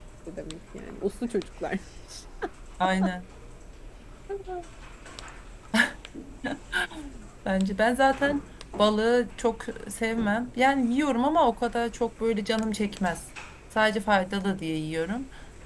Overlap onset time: none

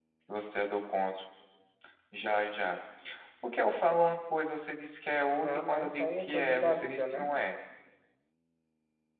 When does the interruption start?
5 s

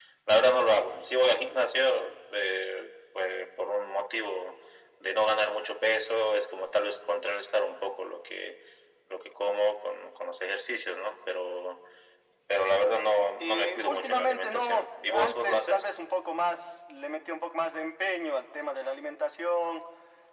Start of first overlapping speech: 13 s

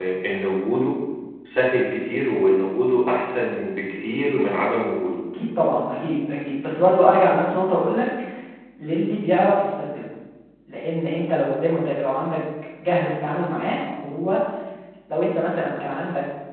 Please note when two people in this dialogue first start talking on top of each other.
none

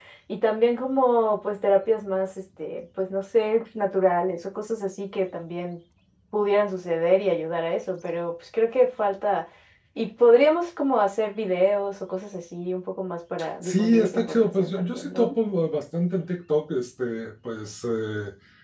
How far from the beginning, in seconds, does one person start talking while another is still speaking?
13 s

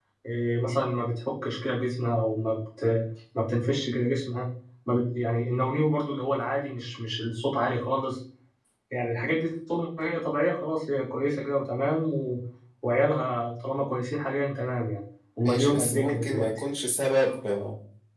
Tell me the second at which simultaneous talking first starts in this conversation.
15 s

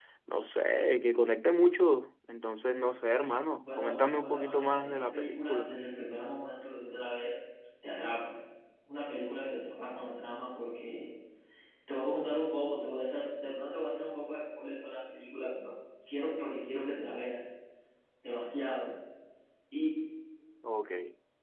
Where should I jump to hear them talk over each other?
4 s

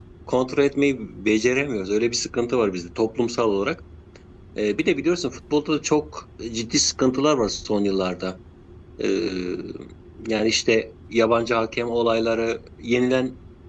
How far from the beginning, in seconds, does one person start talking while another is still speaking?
none

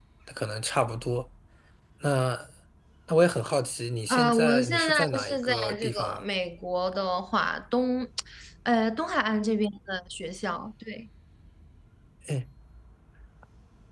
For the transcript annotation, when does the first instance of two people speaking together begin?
4 s

